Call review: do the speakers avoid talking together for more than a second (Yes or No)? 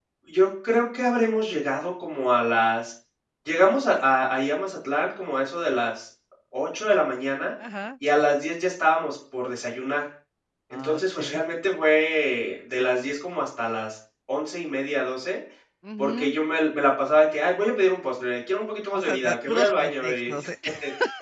No